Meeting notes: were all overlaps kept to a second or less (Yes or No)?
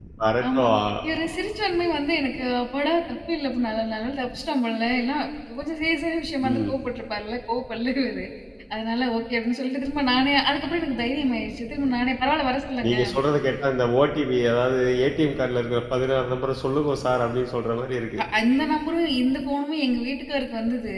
Yes